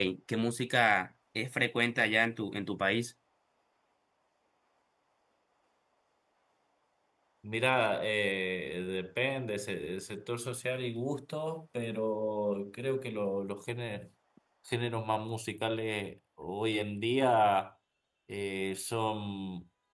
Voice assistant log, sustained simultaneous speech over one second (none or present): none